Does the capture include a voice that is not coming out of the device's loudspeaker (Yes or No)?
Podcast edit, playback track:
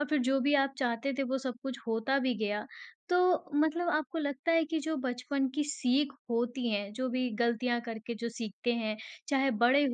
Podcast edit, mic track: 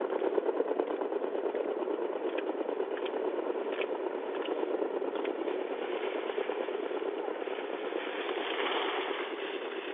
No